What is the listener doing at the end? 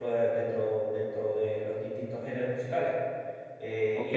taking over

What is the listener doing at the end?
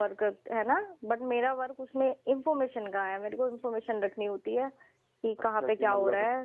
taking over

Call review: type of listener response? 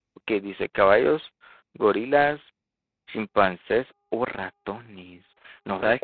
taking over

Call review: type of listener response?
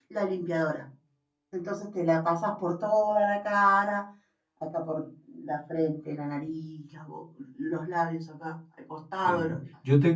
taking over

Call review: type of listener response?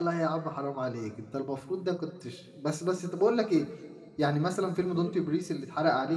listening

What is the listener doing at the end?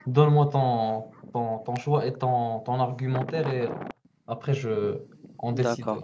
taking over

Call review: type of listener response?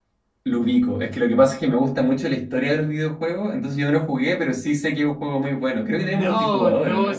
taking over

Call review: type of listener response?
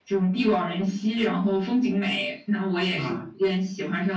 listening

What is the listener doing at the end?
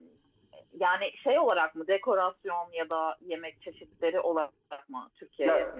taking over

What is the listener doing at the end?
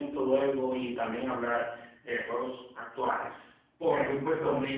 taking over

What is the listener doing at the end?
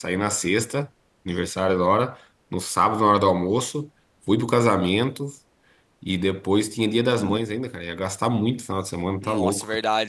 taking over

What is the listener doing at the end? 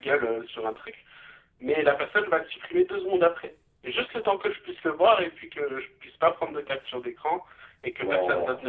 listening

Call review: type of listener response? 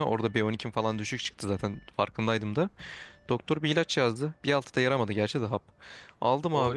taking over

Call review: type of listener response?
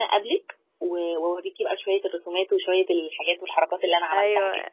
taking over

